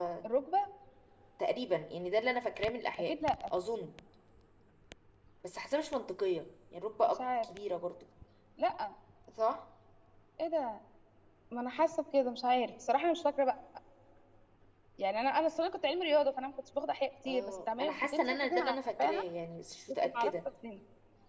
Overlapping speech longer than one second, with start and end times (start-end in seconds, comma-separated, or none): 17.2-19.2